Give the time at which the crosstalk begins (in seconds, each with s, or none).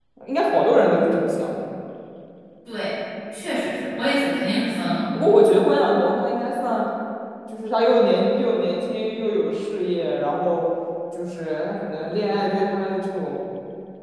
none